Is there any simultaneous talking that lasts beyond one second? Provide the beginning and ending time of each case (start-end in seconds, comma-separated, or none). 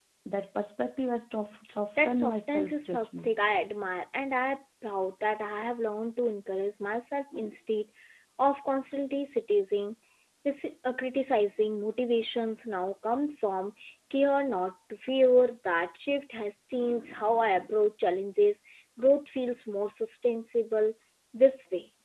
2.0-3.4